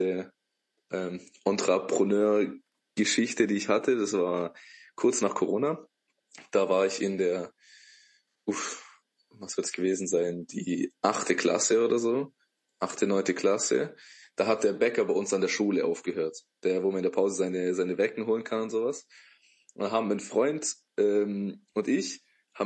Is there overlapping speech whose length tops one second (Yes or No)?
No